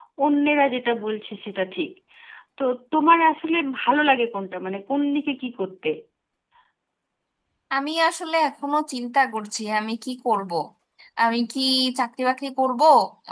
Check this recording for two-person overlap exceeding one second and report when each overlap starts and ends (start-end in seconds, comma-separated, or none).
none